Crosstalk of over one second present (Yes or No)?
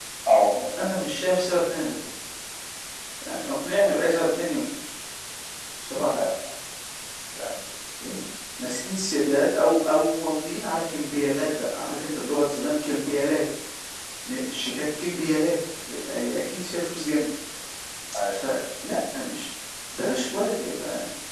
No